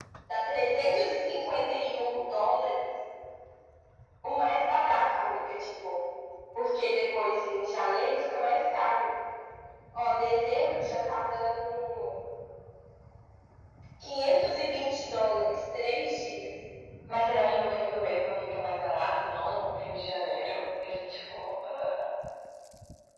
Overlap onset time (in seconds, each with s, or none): none